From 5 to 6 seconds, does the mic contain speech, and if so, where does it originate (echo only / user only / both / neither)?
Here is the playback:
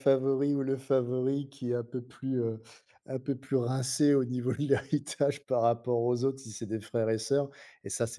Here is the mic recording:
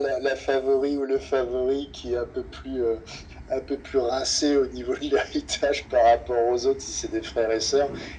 echo only